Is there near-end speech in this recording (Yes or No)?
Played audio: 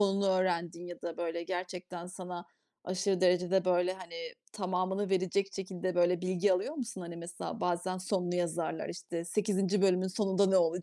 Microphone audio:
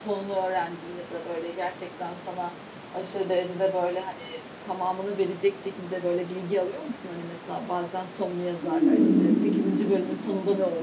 Yes